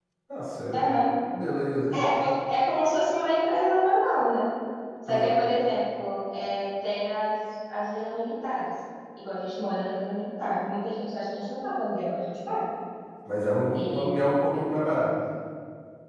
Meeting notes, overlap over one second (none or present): none